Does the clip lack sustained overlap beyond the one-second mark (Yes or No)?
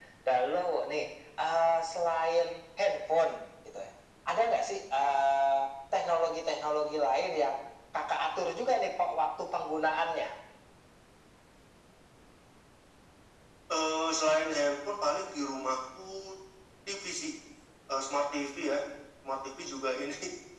Yes